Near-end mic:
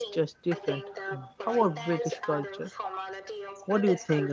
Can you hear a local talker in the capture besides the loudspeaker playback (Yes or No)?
Yes